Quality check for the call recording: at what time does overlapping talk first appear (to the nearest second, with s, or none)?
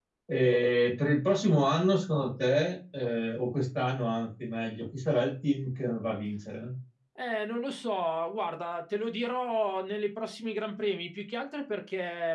none